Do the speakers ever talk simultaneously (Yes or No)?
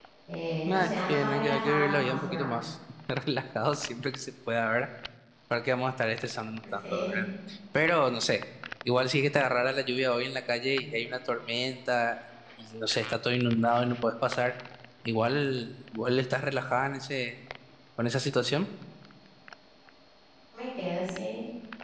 Yes